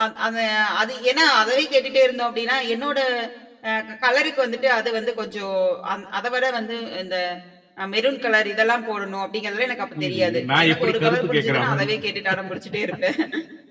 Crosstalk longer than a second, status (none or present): present